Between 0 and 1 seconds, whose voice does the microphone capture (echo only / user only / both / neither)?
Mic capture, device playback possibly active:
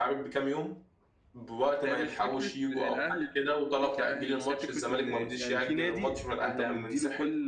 echo only